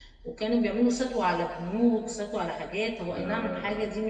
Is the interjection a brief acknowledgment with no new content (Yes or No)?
Yes